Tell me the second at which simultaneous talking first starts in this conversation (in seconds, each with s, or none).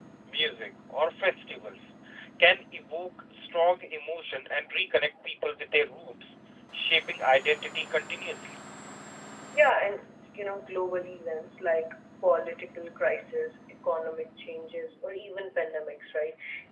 none